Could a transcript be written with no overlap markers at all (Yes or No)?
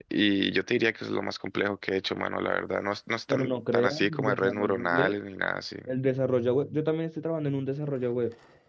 No